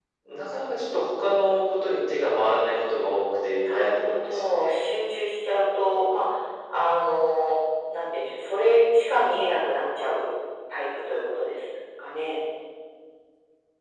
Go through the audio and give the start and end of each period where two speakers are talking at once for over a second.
3.4-4.9

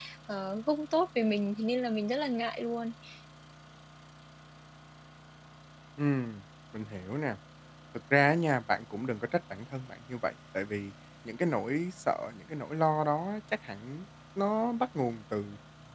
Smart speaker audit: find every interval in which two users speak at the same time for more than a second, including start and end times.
none

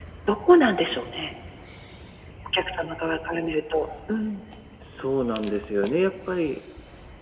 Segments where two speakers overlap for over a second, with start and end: none

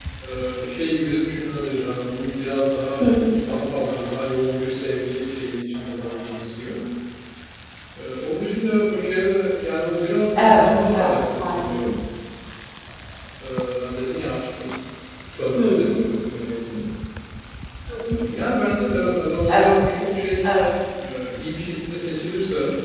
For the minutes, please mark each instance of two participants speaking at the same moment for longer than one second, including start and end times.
10.3-11.8

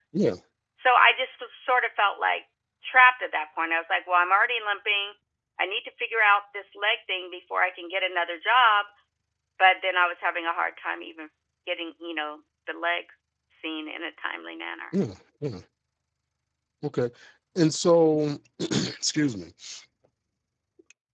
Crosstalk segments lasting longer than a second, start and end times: none

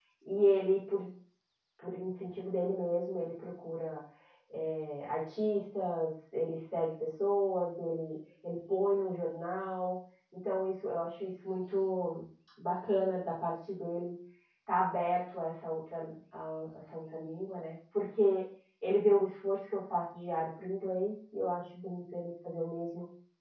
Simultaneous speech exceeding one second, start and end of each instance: none

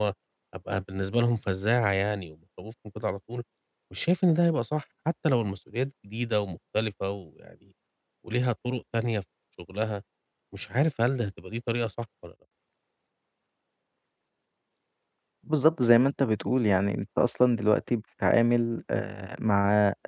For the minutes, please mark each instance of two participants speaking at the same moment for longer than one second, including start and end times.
none

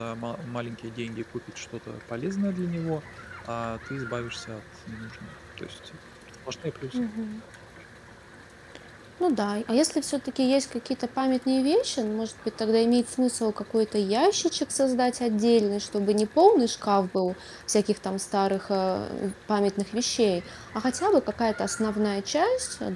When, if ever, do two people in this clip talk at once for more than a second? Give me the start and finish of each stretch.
none

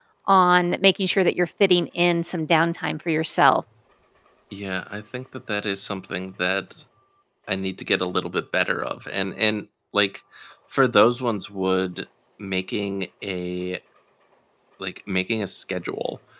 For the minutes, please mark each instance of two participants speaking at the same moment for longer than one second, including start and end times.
none

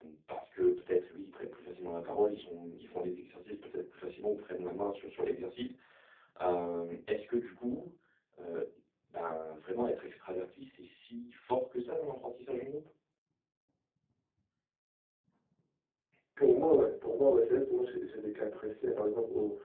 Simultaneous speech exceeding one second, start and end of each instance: none

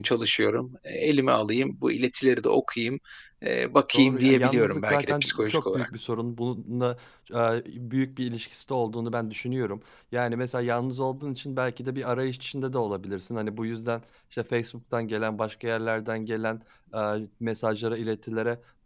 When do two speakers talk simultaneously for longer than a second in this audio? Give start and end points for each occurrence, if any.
3.9-5.9

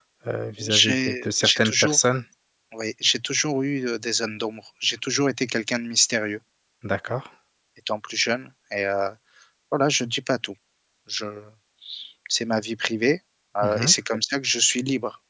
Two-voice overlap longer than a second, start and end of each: 0.7-2.0

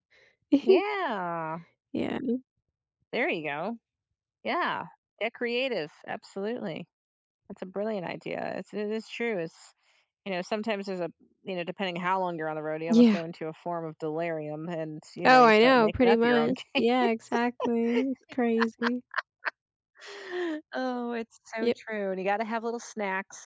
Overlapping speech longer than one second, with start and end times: 15.2-16.8

